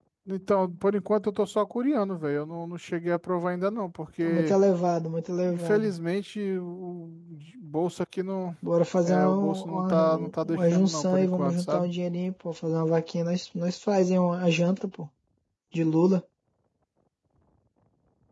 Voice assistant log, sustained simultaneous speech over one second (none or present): present